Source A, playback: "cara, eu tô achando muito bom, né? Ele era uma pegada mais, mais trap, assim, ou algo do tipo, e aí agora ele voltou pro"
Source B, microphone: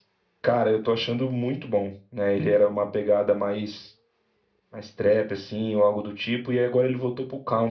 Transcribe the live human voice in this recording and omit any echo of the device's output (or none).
none